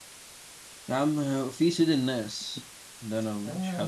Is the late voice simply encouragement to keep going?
No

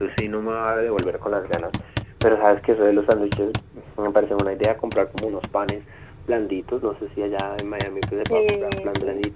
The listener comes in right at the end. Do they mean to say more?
No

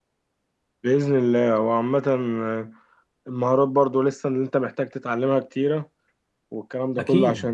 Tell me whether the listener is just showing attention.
Yes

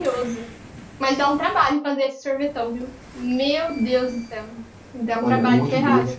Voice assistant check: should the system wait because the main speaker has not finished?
No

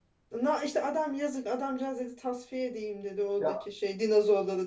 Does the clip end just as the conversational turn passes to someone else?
No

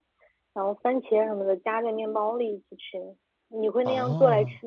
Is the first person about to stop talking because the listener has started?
Yes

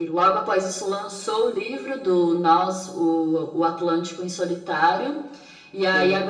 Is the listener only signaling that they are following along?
Yes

